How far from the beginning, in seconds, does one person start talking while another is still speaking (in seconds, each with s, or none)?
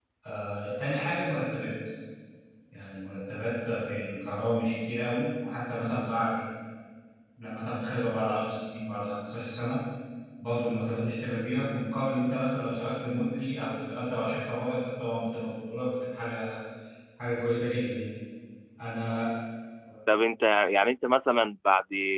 none